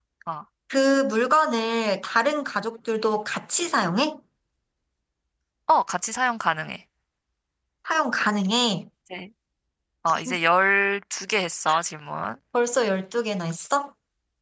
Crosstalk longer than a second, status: none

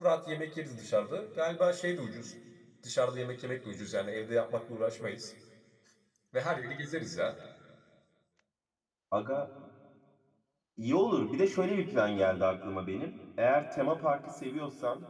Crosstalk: none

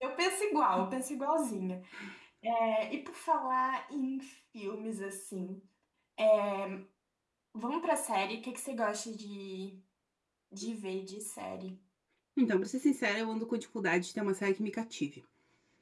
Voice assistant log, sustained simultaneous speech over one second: none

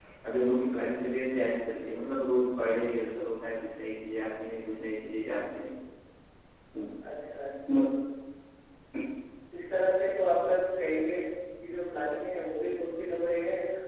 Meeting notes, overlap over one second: none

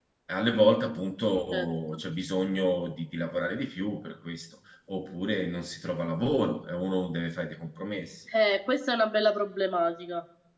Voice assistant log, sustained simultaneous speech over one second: none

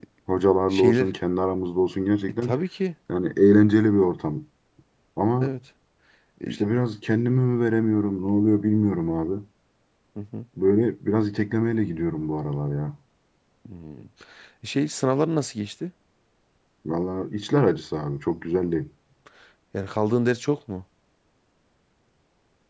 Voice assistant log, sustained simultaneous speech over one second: none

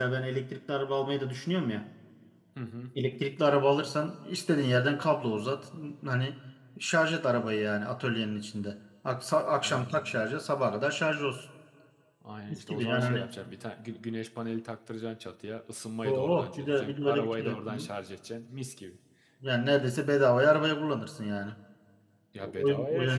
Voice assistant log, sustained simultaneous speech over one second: present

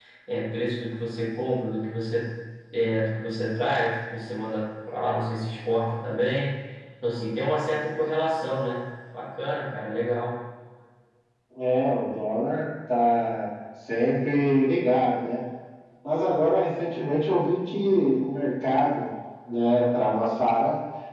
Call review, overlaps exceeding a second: none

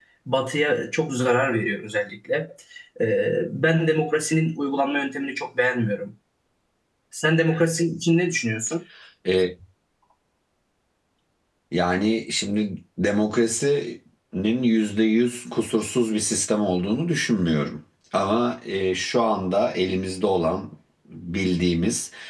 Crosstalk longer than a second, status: none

